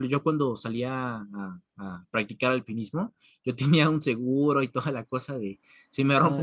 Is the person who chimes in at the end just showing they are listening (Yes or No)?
Yes